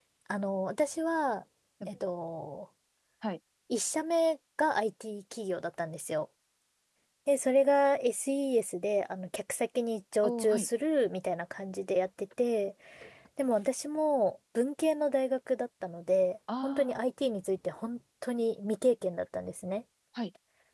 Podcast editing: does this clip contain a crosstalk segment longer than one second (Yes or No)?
No